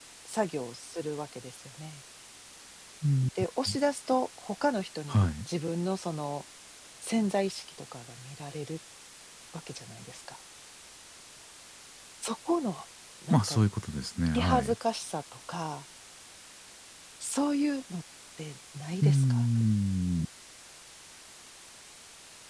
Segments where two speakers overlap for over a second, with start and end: none

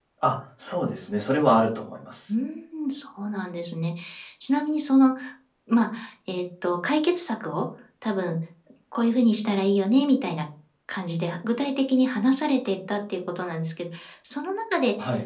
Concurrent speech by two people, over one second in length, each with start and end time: none

